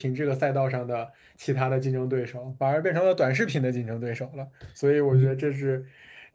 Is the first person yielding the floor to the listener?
No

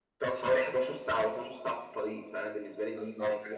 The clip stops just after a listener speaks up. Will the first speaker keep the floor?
No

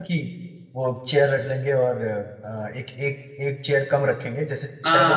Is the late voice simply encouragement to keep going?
Yes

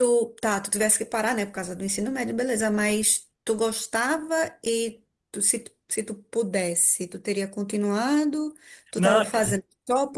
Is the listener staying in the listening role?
Yes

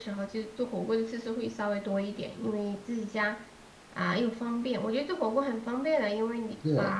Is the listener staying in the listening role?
Yes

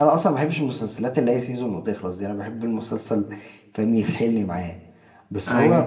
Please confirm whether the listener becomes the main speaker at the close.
No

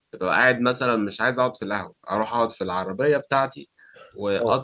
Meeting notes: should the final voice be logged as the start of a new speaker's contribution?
No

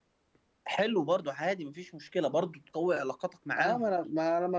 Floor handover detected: Yes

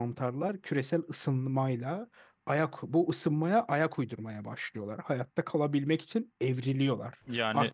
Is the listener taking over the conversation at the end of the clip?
No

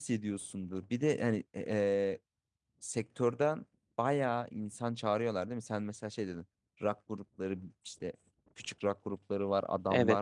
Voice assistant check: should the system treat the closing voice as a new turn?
Yes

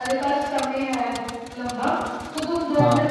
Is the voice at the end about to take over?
No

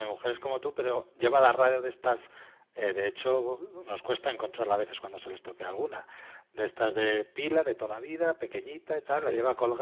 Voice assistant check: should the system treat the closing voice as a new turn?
No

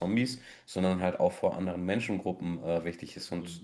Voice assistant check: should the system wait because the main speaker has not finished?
Yes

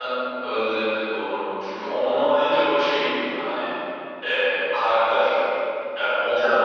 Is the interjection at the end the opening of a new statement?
No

